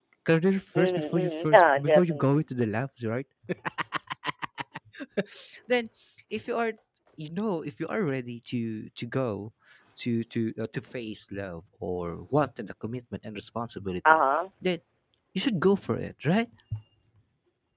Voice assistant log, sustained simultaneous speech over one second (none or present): present